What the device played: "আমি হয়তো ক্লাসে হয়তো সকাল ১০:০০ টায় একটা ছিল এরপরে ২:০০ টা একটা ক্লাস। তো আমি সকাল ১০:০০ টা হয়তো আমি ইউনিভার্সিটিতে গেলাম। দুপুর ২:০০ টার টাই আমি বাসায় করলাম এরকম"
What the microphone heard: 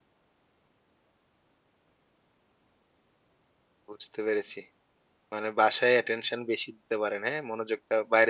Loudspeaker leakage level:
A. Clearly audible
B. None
B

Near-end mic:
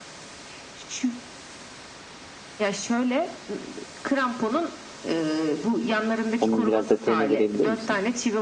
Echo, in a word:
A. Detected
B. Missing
A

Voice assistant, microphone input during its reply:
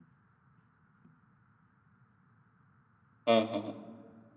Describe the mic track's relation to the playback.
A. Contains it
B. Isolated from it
B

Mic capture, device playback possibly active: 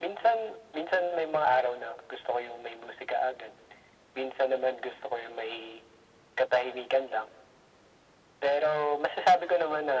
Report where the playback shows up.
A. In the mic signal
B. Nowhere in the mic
A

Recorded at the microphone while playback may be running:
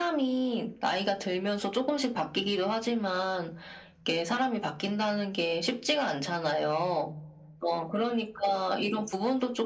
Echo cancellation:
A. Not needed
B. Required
B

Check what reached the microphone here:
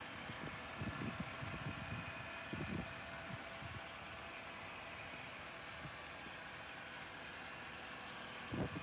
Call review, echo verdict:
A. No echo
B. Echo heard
A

